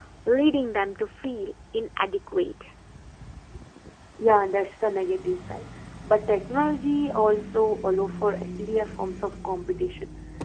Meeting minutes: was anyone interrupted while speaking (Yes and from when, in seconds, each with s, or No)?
No